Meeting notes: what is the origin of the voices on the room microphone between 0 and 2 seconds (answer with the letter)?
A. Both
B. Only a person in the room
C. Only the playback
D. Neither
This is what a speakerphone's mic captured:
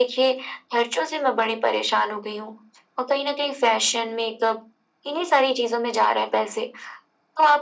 C